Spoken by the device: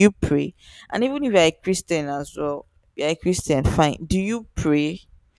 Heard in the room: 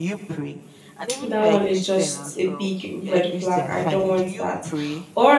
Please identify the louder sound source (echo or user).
user